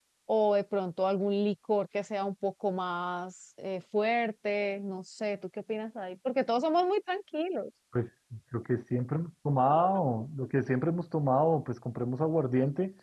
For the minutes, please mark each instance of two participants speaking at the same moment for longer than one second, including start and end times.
none

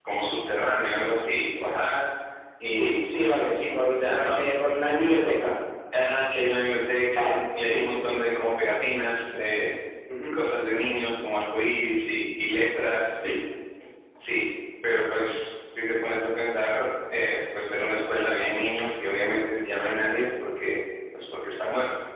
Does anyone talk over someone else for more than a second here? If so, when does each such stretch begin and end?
7.2-8.5

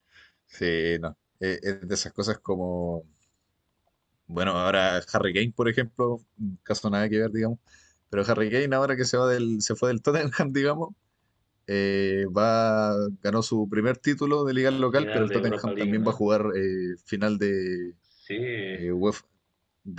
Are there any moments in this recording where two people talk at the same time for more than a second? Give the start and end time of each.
15.0-16.2

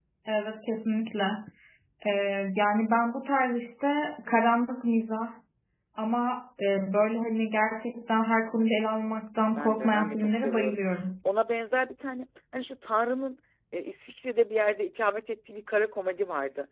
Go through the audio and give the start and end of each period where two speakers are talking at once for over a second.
9.6-10.8

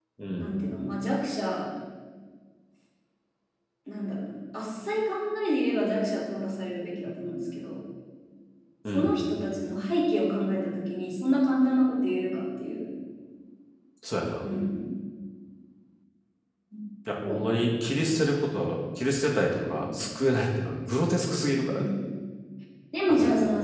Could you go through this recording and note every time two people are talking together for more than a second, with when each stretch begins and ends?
none

